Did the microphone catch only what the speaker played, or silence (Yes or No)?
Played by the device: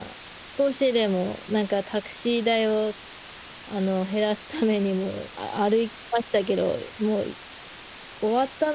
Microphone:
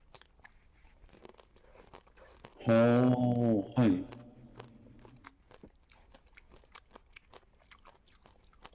No